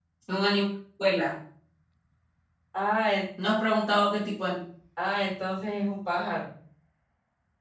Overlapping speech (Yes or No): No